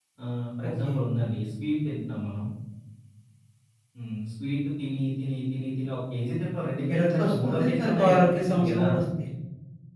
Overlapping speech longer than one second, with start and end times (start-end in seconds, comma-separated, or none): 6.9-8.8